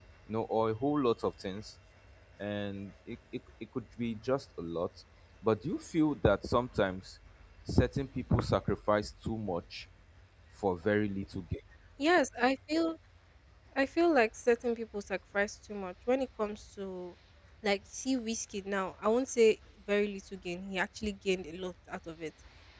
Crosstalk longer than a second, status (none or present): none